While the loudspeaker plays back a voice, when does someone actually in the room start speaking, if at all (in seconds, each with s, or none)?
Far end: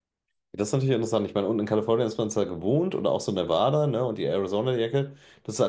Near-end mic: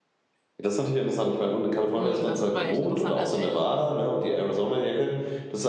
2.0 s